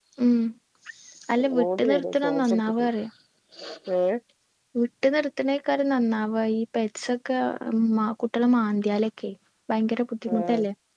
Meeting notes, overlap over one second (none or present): present